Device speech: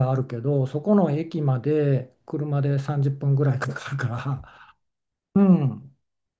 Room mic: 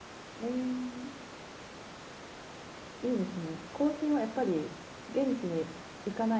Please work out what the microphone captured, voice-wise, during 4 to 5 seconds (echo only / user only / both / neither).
user only